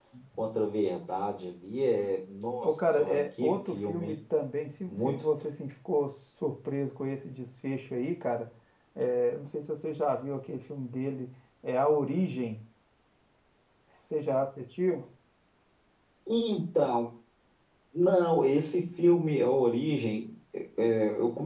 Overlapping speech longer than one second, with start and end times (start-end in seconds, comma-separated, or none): 2.6-4.2